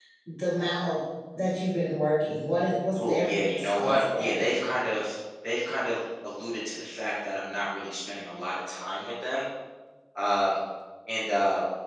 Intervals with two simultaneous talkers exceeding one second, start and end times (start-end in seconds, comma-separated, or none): 3.0-4.4